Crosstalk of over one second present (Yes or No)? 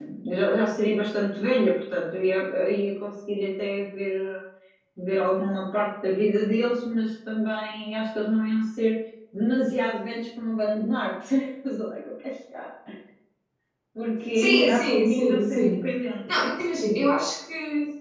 Yes